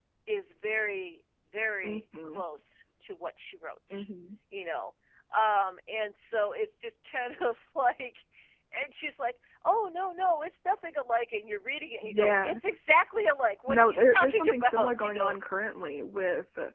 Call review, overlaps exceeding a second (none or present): present